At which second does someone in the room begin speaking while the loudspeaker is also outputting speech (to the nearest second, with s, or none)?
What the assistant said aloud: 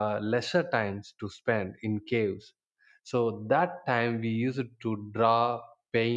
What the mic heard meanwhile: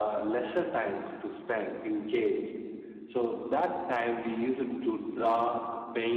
none